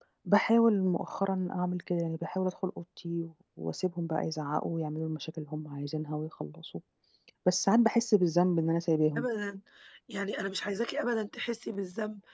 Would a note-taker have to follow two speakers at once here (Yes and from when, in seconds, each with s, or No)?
No